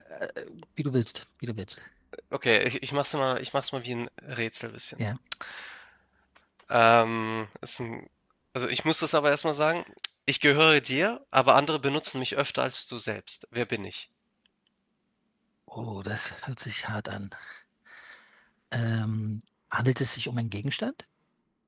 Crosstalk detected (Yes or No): No